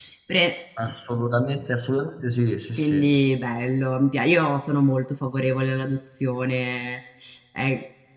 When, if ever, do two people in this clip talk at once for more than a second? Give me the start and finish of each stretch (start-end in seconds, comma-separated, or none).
none